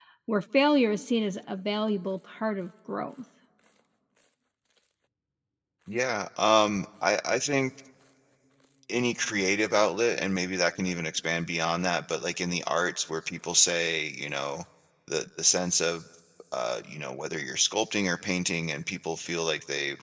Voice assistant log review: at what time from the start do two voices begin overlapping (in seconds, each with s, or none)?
none